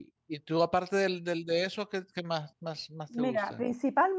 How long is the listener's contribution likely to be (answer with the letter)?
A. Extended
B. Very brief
A